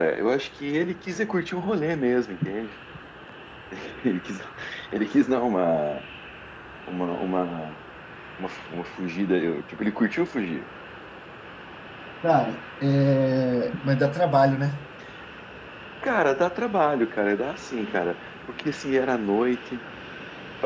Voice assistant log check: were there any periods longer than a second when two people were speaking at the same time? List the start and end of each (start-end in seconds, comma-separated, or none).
none